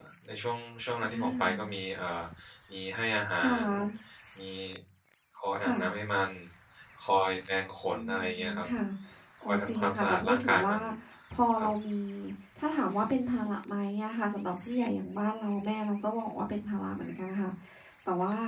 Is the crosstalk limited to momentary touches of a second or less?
No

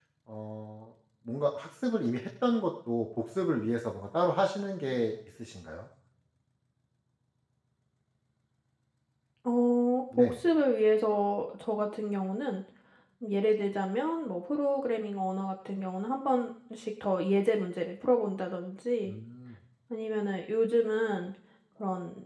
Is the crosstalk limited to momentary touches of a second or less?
Yes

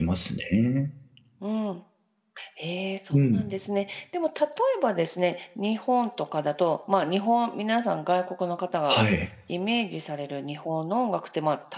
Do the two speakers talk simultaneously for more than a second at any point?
No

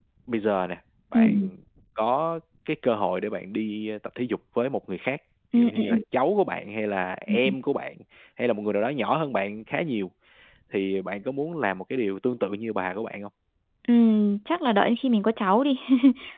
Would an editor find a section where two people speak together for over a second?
No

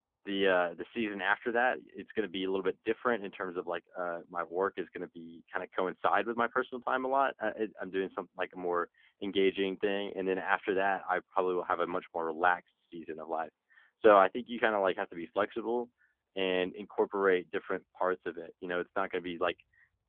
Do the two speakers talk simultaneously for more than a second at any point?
No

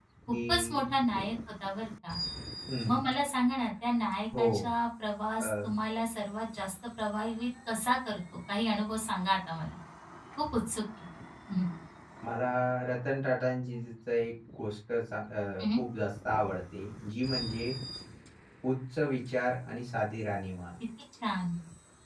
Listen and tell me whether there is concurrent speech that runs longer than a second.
No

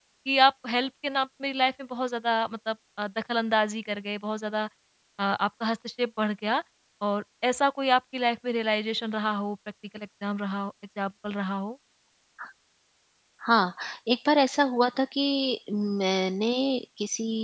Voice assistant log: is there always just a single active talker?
Yes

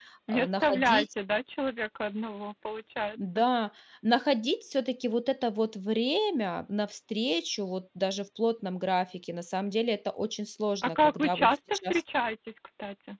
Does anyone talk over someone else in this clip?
Yes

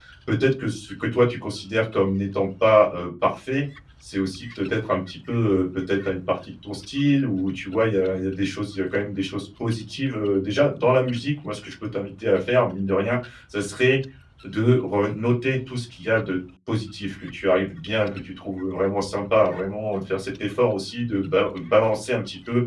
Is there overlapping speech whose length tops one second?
No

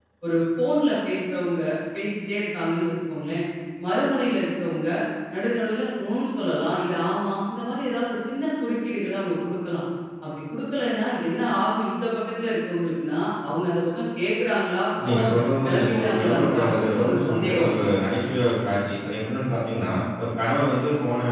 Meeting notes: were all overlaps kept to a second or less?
No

